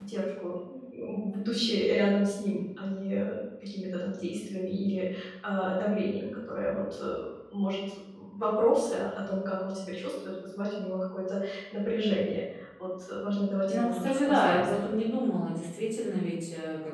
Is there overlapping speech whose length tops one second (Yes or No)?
Yes